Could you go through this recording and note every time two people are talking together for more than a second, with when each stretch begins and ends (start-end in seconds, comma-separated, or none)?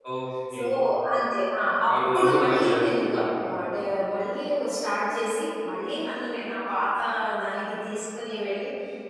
1.9-3.6